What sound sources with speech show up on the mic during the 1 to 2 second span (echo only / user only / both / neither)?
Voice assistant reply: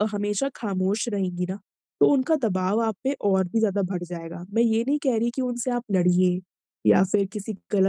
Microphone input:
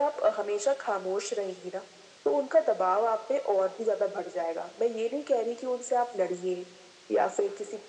echo only